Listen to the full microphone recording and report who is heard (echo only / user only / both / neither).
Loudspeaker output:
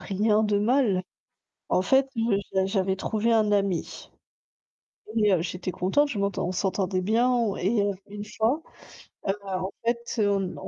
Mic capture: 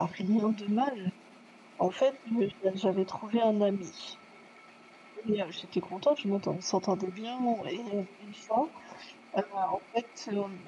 echo only